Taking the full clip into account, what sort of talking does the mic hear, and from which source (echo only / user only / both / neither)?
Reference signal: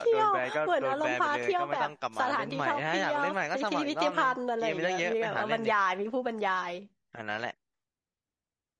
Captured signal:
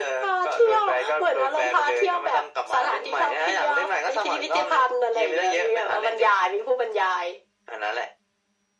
echo only